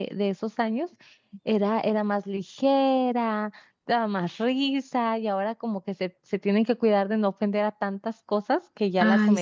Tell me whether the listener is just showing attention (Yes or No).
No